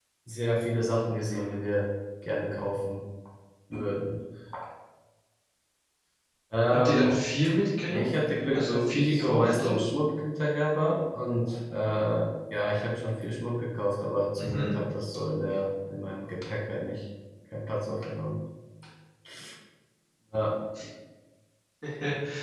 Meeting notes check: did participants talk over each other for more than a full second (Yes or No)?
Yes